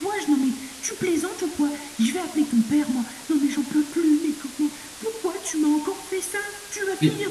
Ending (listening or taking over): taking over